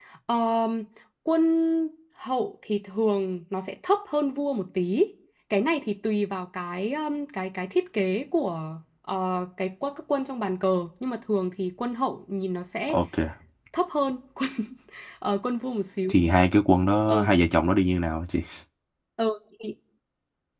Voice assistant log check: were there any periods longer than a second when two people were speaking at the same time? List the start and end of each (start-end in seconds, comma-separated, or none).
none